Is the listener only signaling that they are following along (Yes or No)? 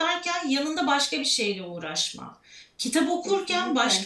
Yes